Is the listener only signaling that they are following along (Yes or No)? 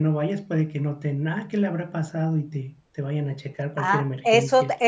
No